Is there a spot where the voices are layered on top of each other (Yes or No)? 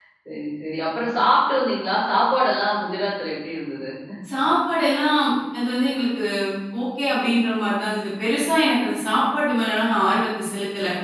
No